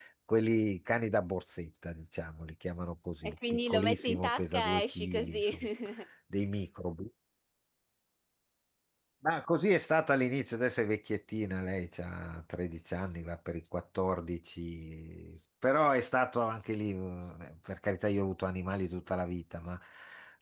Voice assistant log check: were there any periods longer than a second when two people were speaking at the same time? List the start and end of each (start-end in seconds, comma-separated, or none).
3.2-5.6